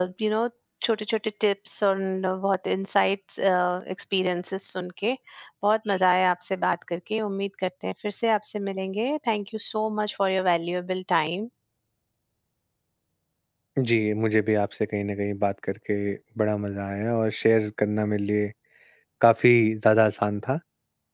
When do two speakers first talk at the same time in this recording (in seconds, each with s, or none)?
none